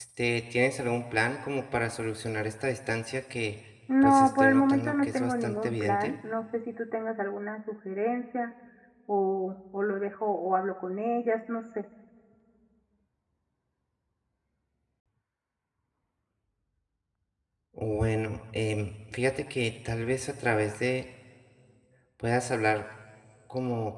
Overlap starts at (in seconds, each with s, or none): 4.0 s